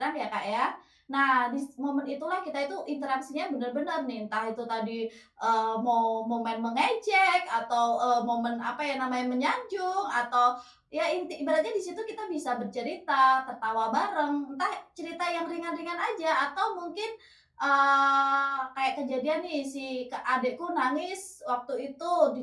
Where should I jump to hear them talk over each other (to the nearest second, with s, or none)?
none